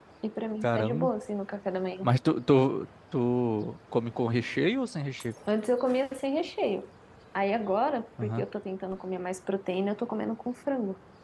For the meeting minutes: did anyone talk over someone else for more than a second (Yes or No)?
No